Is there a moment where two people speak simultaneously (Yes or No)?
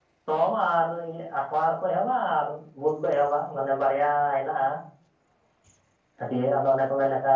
No